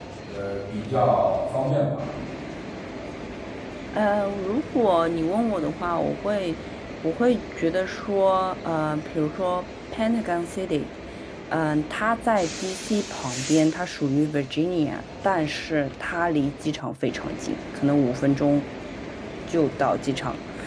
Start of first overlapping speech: none

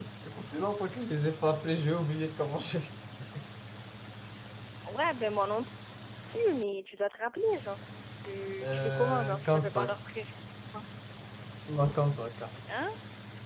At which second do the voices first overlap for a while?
8.6 s

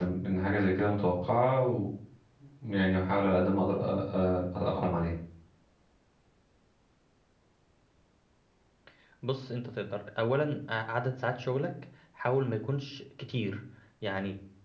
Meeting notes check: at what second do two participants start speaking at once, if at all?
none

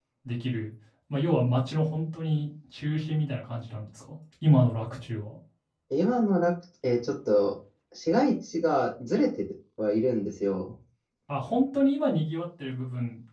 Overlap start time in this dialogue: none

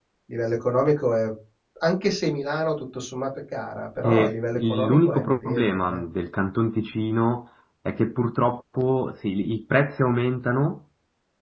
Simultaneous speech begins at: 4.0 s

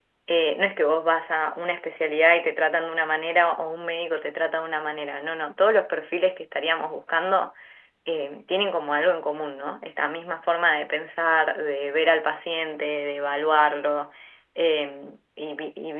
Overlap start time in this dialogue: none

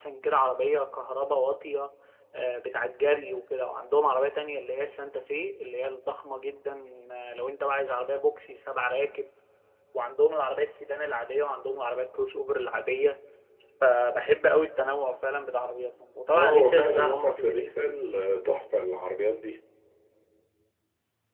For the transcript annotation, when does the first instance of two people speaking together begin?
16.3 s

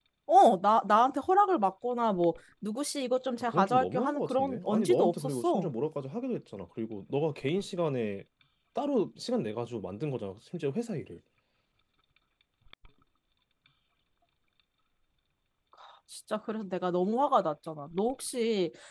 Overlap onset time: 3.4 s

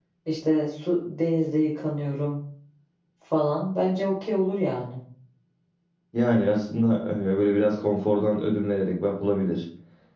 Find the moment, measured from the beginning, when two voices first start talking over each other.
none

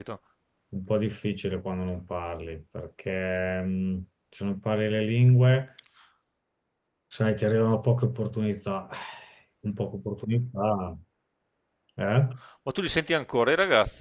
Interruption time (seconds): none

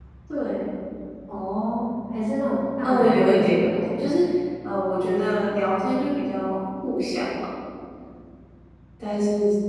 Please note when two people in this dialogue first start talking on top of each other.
2.8 s

